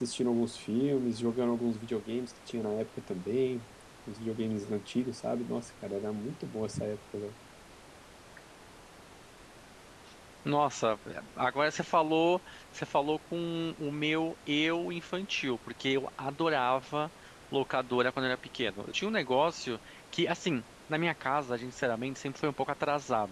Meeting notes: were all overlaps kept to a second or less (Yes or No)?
Yes